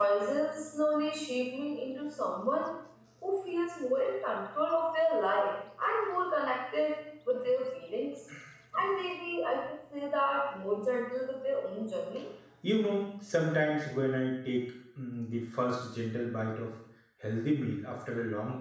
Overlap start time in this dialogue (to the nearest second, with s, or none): none